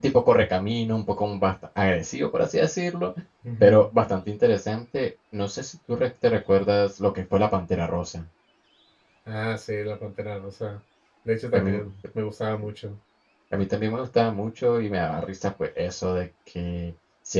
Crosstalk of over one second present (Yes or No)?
No